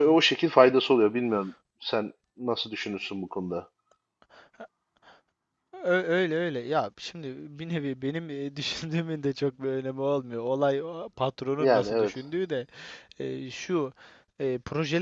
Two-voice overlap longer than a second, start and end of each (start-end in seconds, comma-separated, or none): none